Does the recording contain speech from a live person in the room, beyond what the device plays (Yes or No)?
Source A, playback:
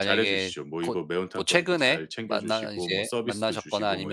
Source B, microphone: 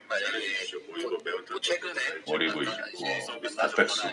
Yes